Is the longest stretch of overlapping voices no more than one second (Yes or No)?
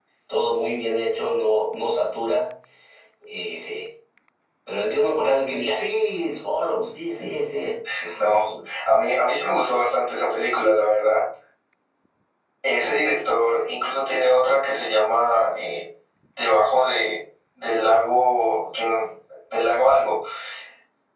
Yes